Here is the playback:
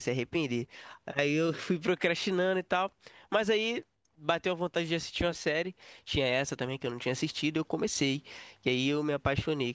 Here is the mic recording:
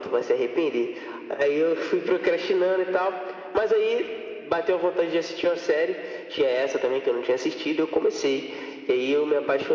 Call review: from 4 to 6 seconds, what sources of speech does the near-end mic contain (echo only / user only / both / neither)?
echo only